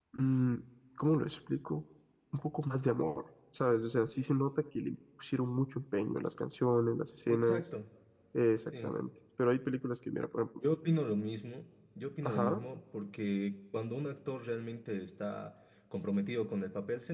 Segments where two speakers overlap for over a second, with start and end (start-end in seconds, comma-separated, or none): none